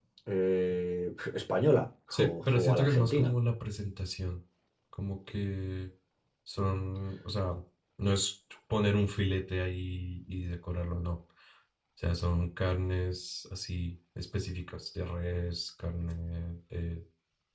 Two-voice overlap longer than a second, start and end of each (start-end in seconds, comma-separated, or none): 2.1-3.3